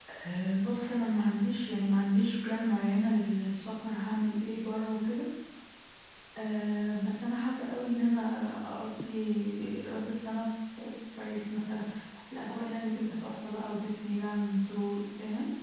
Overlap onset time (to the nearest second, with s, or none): none